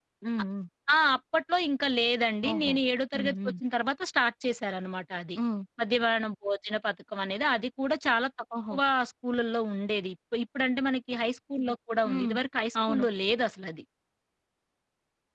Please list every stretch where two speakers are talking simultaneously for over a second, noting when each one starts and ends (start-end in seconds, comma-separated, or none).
none